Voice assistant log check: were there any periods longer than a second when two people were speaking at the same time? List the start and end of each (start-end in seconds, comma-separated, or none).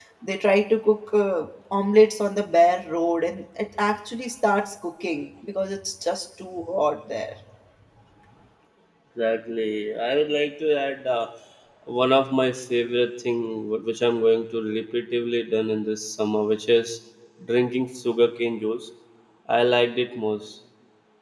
none